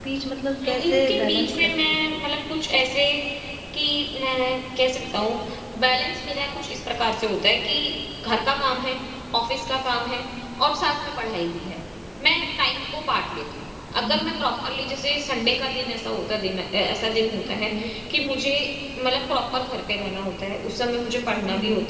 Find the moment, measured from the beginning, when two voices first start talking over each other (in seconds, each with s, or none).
0.5 s